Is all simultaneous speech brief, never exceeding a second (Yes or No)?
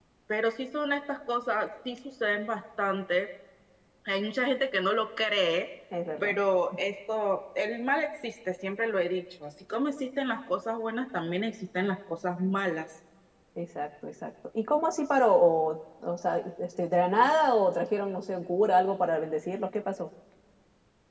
Yes